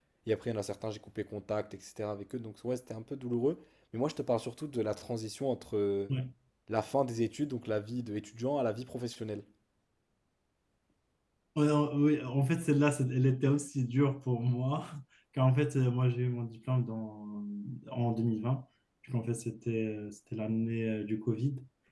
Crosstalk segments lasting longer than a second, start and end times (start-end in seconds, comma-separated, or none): none